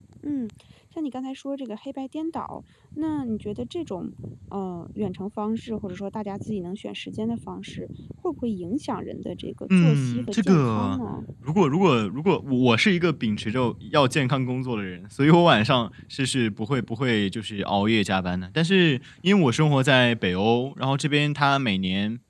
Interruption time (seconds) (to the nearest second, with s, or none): 10 s